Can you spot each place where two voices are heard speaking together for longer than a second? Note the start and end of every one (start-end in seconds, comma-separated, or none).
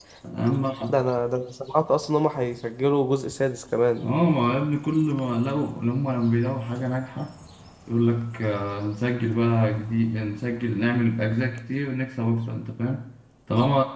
none